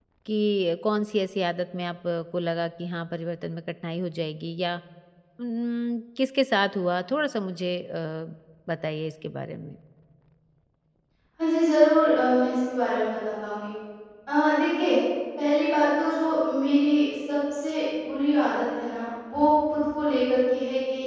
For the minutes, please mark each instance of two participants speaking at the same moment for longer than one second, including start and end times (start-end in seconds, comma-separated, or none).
none